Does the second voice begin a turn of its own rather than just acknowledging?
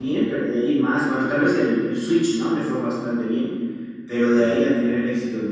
No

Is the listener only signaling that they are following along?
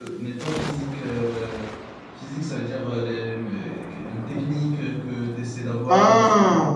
Yes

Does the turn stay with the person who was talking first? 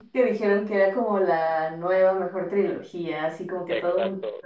No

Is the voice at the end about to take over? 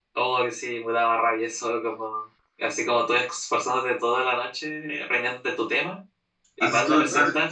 Yes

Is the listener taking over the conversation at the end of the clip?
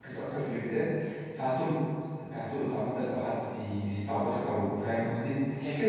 Yes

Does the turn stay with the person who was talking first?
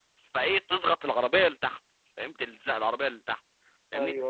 Yes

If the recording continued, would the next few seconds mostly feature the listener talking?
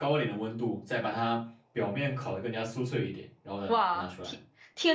Yes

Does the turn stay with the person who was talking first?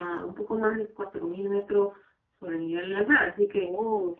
Yes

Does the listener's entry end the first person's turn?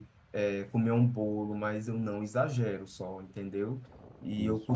No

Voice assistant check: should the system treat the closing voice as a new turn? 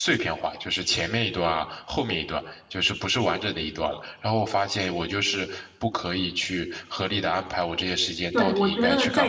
Yes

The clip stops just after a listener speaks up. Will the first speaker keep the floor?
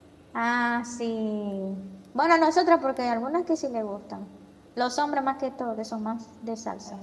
No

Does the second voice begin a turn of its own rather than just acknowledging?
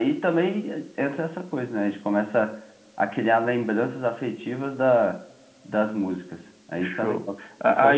Yes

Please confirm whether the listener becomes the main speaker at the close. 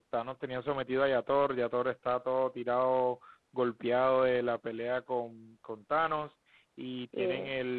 No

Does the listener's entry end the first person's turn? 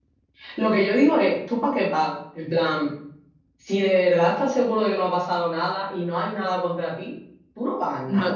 Yes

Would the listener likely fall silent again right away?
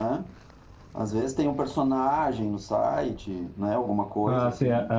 No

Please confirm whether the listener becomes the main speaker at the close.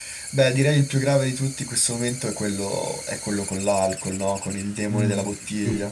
Yes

